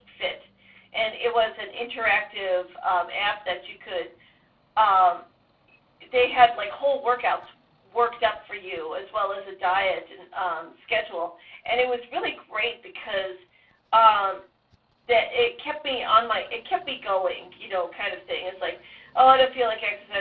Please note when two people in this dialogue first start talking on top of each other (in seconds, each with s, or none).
none